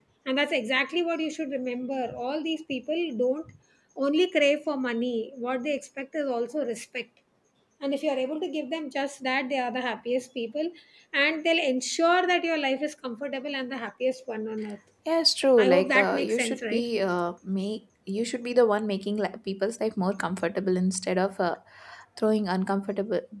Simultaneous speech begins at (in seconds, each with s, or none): 15.6 s